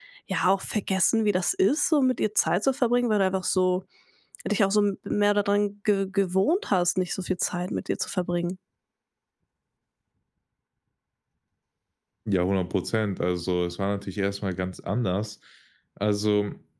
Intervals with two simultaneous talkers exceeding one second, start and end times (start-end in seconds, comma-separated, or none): none